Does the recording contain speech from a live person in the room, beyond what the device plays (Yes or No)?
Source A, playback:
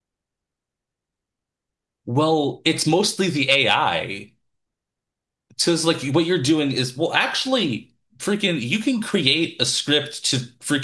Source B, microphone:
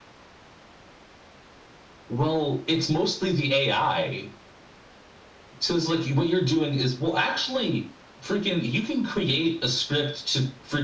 No